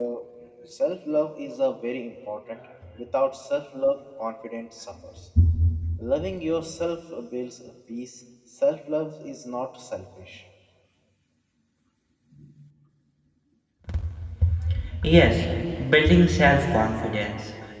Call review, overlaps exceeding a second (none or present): none